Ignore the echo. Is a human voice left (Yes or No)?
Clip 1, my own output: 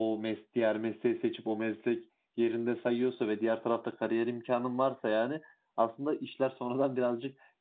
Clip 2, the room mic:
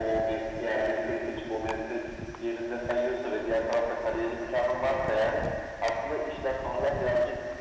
No